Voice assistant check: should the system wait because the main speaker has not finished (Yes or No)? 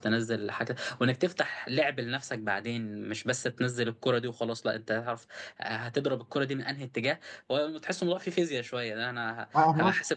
Yes